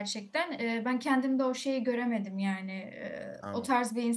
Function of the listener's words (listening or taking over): listening